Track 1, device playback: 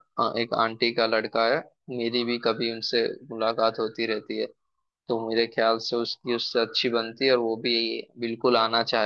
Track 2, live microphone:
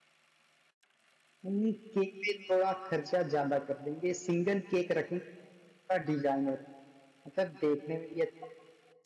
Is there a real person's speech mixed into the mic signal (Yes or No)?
Yes